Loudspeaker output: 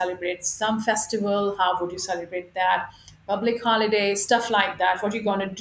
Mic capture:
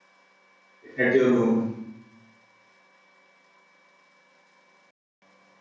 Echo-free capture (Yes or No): Yes